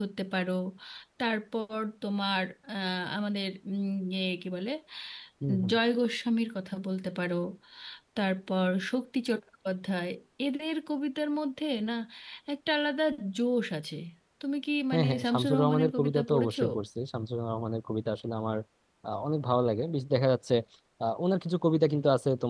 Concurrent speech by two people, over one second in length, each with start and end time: 14.9-16.6

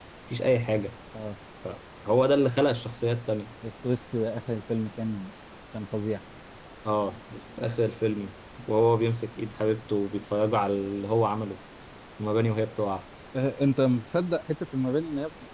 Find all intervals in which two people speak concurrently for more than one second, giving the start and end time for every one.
none

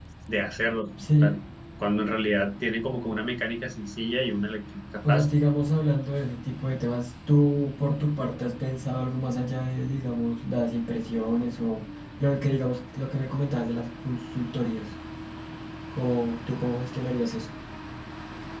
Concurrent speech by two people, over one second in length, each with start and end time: none

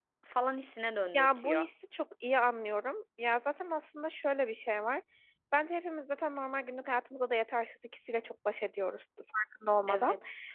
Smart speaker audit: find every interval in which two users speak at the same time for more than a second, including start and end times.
none

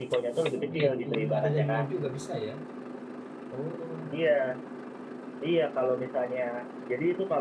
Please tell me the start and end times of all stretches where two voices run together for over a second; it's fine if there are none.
0.6-1.9

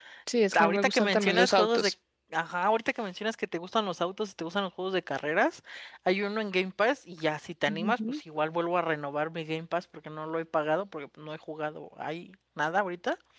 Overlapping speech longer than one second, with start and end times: 0.5-1.9

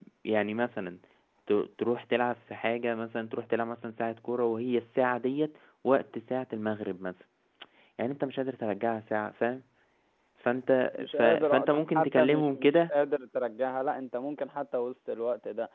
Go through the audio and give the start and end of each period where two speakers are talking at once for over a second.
11.0-12.9

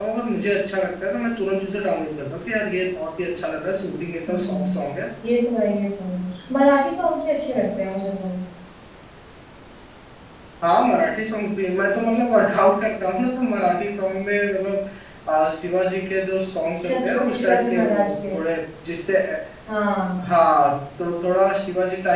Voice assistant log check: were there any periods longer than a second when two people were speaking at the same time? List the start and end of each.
16.8-18.3

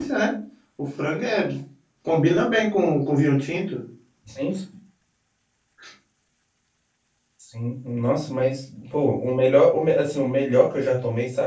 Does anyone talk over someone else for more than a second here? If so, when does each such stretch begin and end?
none

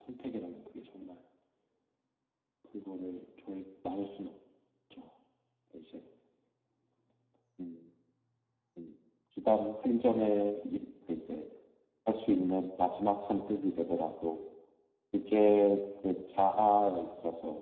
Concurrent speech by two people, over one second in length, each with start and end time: none

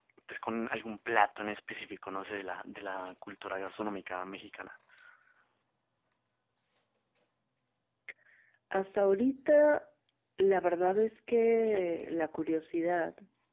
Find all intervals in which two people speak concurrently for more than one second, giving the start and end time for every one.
none

